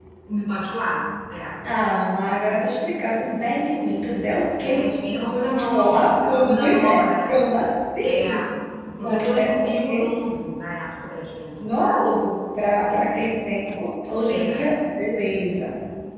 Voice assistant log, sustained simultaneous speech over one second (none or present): present